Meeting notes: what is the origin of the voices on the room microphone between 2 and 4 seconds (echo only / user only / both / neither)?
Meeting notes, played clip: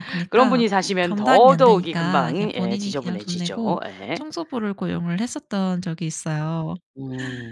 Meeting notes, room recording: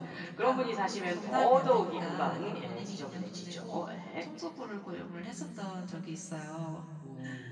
echo only